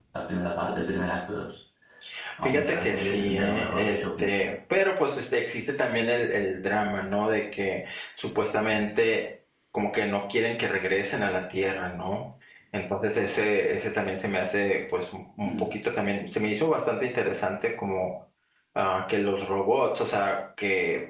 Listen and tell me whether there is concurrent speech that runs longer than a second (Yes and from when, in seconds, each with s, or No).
Yes, from 2.4 s